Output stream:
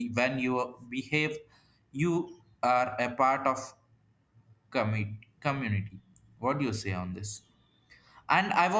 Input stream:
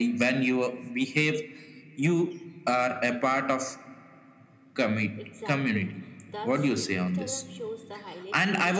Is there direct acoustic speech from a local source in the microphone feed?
Yes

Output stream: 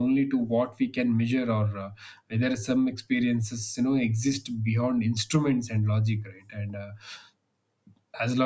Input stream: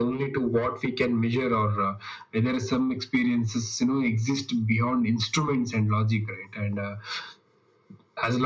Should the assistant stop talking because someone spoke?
No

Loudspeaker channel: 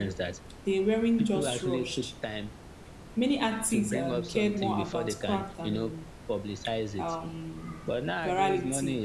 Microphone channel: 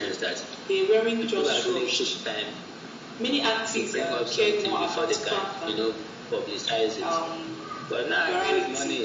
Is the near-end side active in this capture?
No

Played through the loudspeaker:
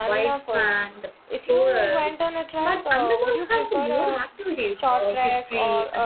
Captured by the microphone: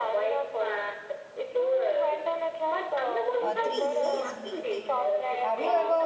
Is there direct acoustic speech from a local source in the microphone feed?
Yes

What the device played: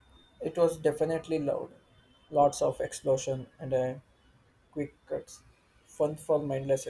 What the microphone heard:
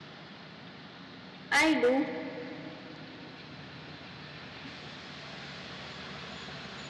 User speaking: Yes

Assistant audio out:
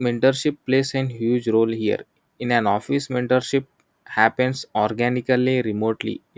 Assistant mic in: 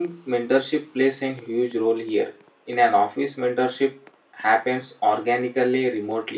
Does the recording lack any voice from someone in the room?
Yes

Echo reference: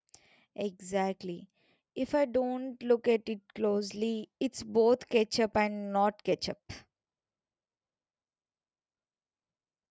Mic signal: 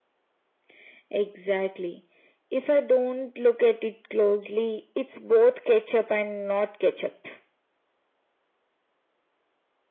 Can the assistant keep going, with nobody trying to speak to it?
Yes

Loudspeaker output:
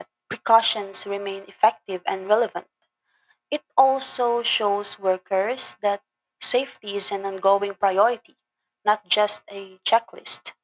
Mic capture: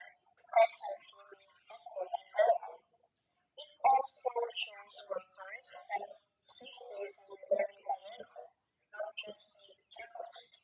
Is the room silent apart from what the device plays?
Yes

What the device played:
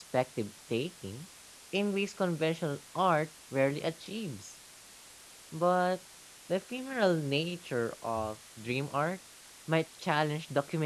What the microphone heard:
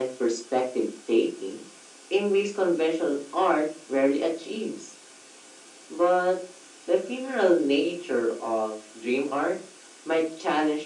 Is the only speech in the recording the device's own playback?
Yes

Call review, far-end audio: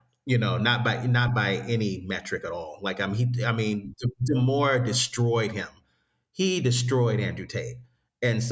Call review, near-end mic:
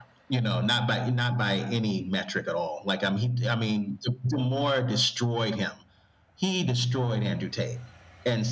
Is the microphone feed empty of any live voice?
Yes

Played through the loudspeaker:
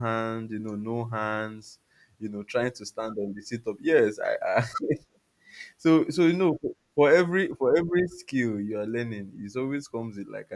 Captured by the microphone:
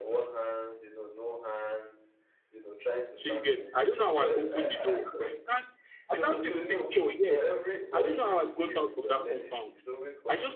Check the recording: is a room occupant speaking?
Yes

